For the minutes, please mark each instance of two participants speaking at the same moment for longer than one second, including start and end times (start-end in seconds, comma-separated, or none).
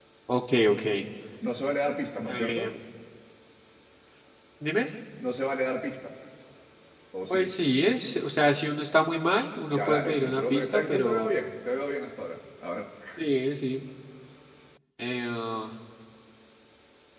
9.7-11.3